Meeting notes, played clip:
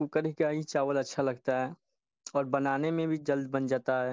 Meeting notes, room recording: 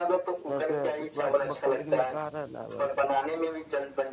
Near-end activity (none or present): present